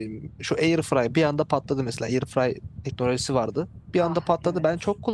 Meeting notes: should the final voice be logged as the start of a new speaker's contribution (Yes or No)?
No